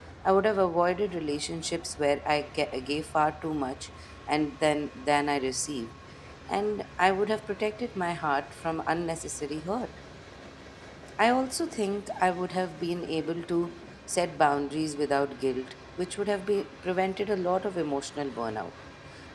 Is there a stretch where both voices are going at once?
No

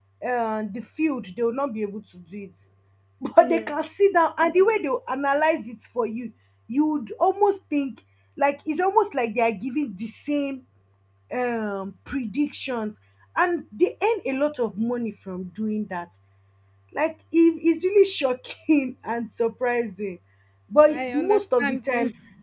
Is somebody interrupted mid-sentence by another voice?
Yes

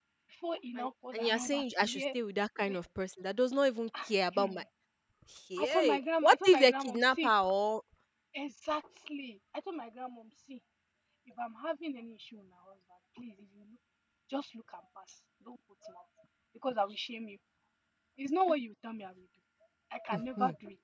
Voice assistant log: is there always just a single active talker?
No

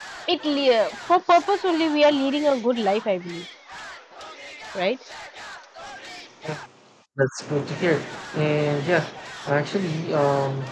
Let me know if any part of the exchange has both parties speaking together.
No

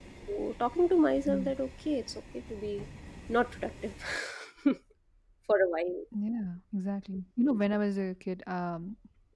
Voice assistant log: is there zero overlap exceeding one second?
Yes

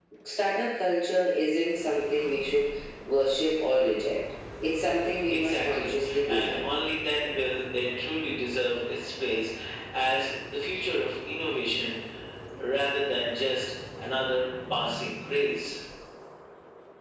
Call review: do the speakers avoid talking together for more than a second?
No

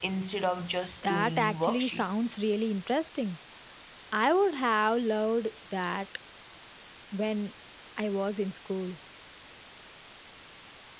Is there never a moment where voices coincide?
No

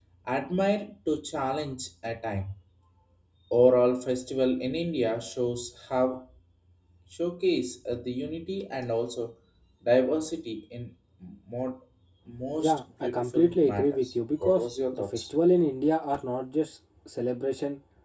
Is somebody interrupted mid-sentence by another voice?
Yes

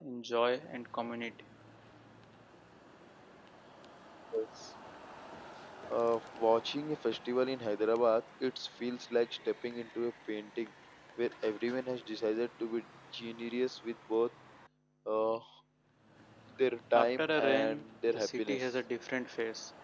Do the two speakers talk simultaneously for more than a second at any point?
Yes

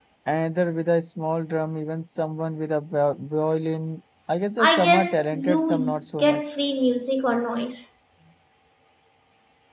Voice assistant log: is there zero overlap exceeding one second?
No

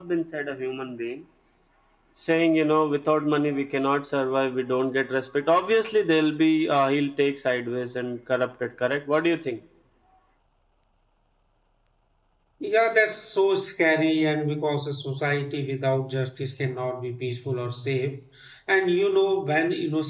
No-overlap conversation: Yes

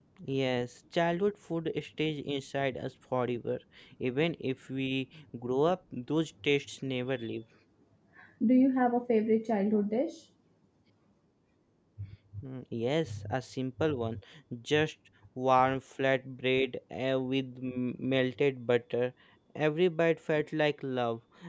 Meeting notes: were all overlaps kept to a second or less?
Yes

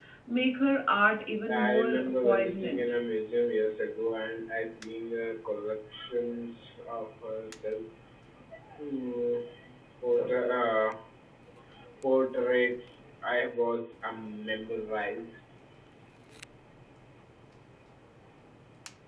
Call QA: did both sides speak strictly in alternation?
No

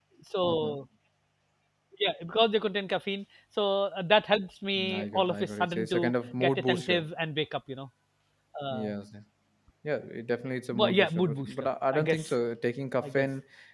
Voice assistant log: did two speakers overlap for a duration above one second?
Yes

